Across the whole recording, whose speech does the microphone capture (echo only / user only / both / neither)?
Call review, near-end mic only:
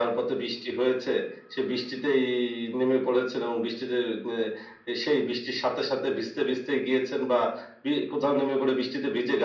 echo only